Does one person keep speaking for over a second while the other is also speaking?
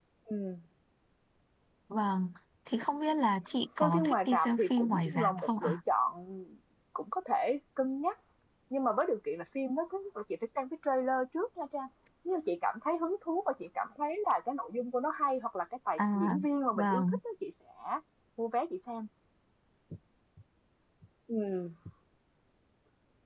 Yes, from 3.8 s

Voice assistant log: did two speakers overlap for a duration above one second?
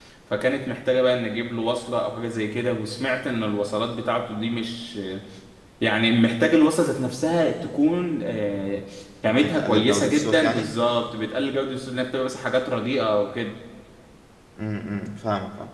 Yes, from 9.2 s

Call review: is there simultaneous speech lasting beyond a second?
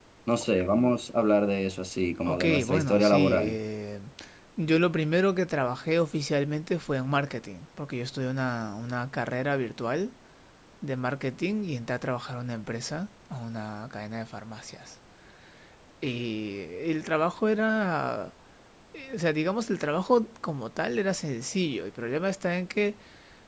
Yes, from 2.3 s

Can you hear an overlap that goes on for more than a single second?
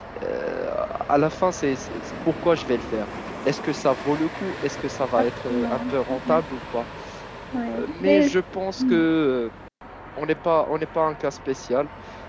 Yes, from 5.2 s

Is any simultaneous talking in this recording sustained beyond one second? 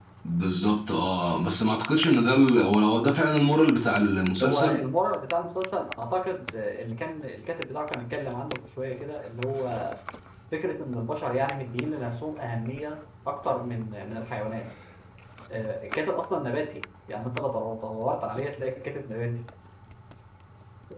No

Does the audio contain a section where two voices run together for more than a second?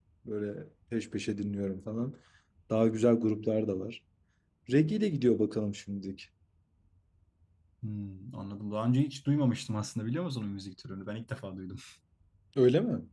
No

